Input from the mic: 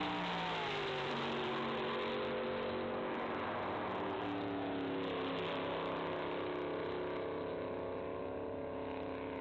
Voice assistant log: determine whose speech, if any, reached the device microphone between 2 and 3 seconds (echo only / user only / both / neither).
neither